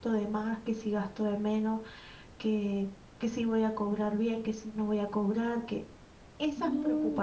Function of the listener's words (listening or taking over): listening